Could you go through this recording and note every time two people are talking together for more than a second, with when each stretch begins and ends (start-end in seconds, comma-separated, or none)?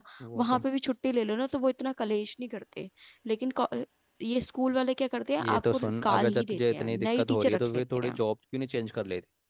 5.4-8.2